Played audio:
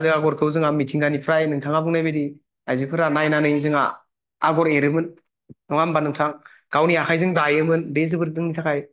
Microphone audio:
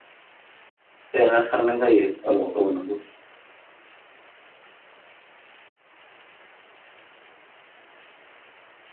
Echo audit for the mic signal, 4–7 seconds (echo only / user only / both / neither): neither